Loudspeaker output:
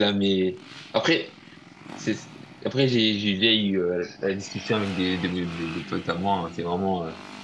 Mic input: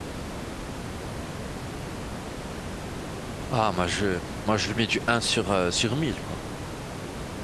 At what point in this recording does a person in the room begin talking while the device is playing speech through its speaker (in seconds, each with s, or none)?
3.5 s